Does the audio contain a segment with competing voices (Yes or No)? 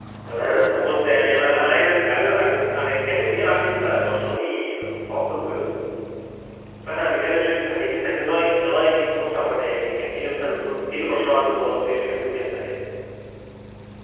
Yes